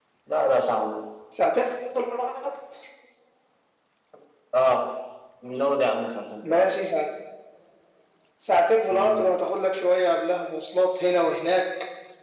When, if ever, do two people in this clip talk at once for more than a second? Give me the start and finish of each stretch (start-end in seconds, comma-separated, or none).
none